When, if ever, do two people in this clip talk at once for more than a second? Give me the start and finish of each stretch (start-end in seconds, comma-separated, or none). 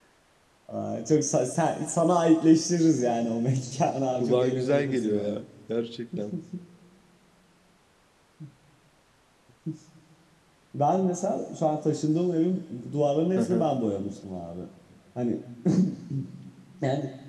4.2-5.4